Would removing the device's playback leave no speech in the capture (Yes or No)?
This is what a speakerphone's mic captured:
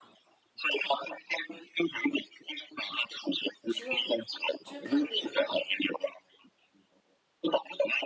No